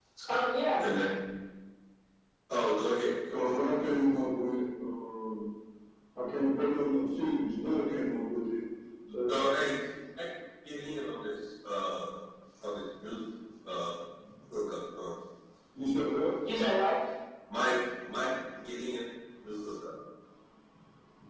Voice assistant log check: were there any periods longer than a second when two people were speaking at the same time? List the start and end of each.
none

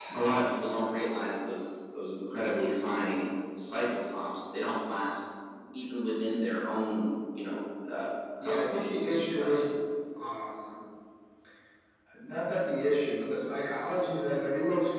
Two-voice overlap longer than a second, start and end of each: 8.4-9.6

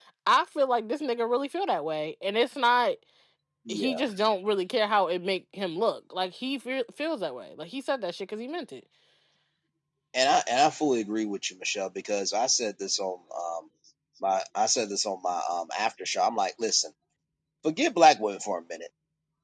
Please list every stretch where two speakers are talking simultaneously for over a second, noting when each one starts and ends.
none

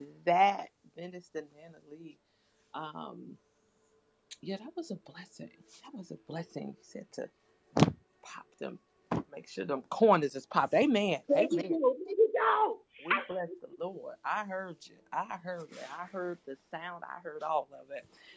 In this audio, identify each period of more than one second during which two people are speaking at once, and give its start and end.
none

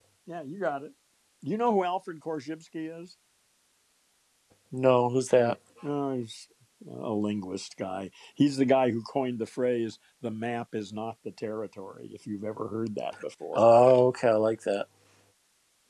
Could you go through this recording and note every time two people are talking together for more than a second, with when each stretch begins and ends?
none

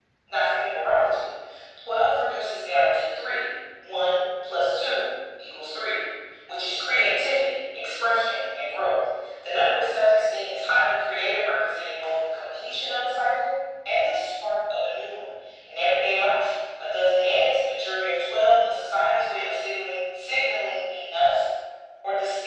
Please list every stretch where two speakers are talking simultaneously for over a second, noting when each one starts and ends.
none

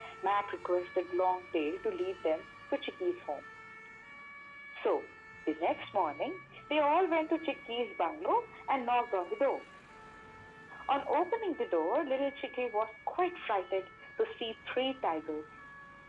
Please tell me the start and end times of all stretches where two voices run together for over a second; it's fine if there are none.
none

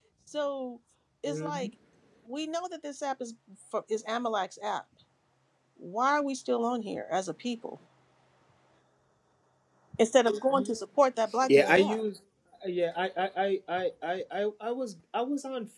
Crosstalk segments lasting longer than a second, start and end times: none

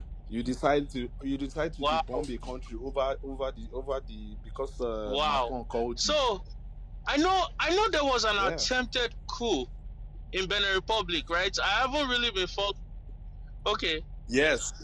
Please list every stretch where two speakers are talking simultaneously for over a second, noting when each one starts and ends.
none

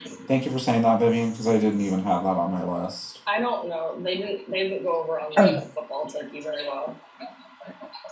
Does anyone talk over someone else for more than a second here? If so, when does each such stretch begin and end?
none

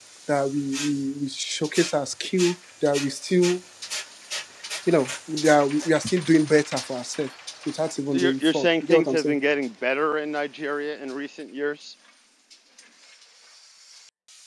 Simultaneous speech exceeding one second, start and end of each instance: 8.1-9.4

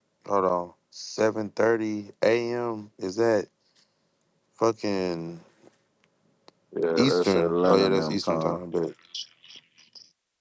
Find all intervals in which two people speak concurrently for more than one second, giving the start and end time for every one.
7.0-8.6

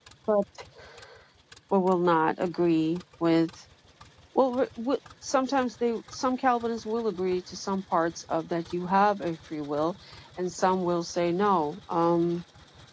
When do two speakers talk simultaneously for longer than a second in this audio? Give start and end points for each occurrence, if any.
none

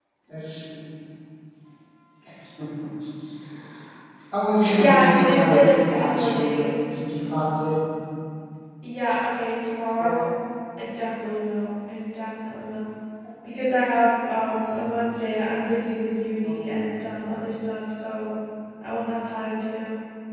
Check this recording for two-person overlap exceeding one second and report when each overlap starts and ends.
4.8-6.7

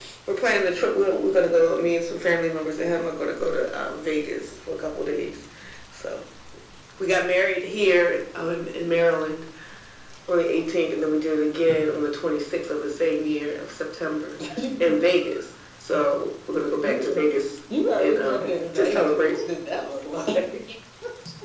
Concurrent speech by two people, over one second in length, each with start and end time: 18.0-19.3

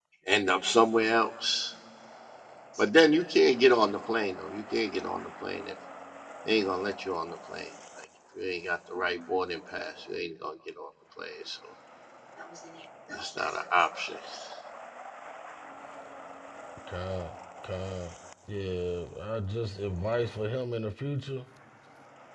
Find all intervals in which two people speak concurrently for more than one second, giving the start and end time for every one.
none

